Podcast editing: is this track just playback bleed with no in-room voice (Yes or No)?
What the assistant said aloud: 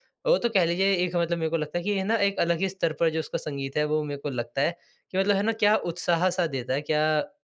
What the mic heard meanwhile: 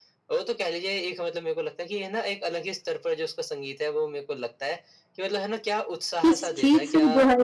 No